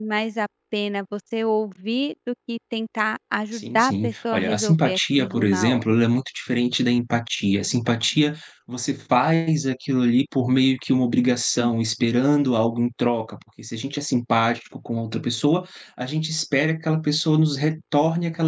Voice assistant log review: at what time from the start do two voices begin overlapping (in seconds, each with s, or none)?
3.5 s